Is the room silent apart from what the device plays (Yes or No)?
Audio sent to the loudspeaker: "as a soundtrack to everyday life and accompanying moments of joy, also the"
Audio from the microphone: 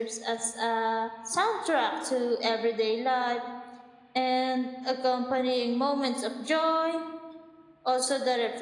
Yes